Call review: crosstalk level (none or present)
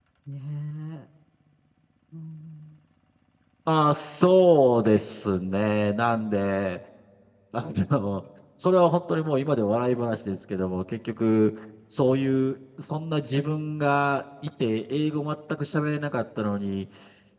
none